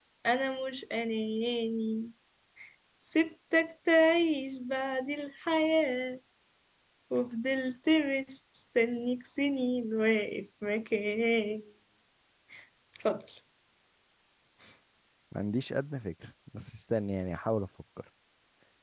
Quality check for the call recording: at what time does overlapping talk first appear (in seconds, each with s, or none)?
none